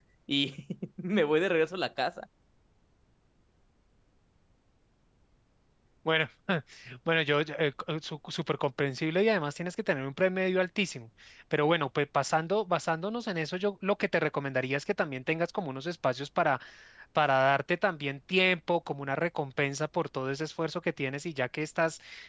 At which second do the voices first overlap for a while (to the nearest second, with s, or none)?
none